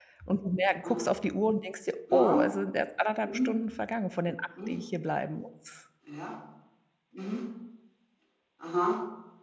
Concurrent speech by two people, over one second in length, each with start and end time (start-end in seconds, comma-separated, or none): none